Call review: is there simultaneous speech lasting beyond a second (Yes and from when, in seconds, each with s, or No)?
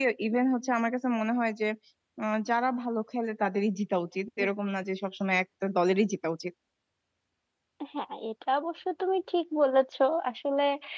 No